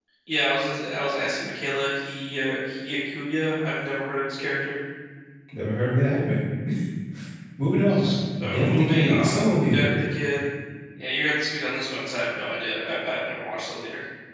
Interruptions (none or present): present